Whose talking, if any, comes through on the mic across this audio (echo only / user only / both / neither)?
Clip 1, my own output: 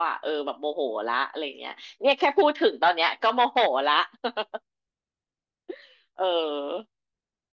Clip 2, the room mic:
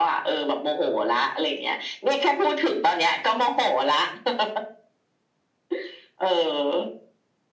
echo only